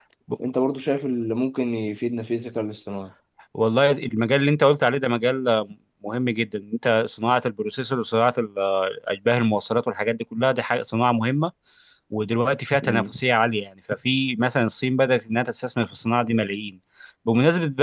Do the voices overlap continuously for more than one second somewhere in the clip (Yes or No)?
No